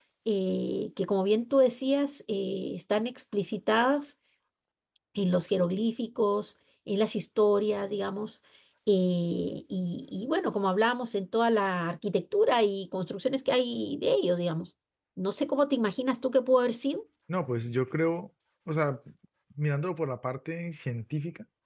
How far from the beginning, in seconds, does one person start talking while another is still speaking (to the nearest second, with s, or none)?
none